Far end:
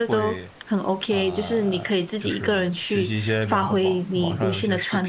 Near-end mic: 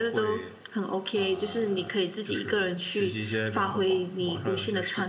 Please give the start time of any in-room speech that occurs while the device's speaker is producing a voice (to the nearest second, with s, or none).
none